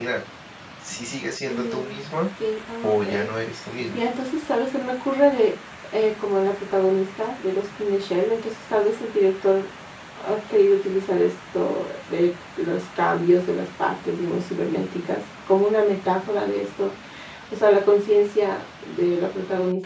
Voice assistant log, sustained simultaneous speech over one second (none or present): none